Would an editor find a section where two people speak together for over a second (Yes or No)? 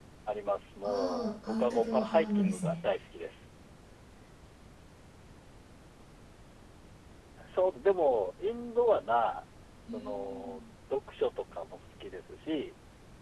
Yes